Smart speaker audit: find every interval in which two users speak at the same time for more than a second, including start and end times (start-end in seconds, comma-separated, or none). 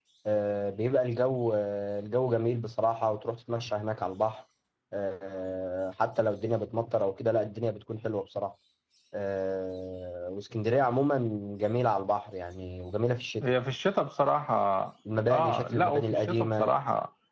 15.3-16.7